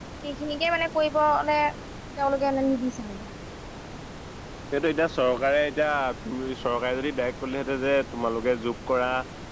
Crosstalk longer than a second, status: none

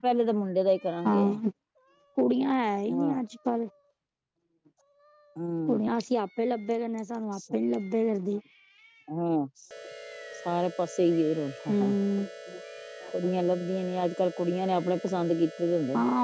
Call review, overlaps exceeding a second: none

